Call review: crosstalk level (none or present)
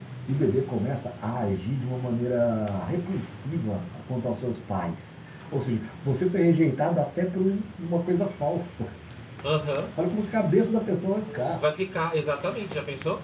none